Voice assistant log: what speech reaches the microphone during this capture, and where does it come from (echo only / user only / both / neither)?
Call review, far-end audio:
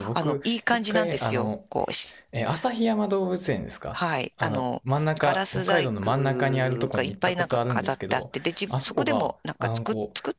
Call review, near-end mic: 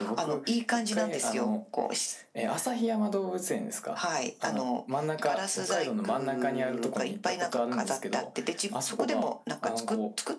echo only